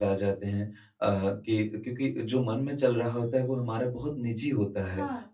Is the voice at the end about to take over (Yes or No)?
No